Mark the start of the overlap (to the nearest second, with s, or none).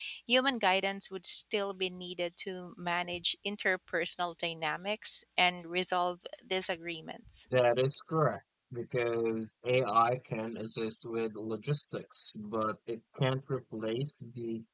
none